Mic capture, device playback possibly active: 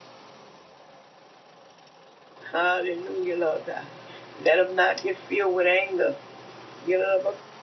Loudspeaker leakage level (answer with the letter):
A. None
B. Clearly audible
A